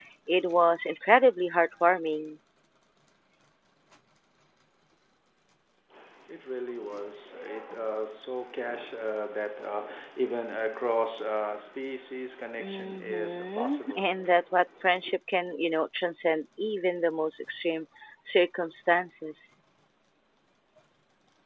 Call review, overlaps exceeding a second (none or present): present